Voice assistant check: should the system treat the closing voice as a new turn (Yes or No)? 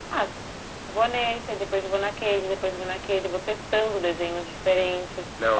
No